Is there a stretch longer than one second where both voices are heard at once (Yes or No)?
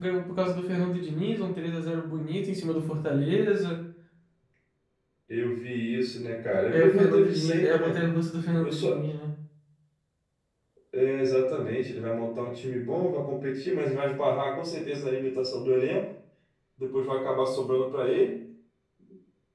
Yes